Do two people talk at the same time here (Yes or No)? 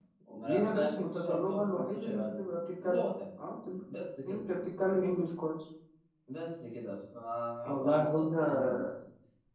Yes